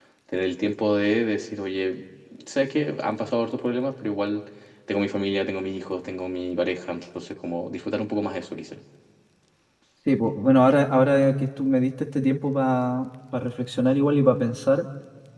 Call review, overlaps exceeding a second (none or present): none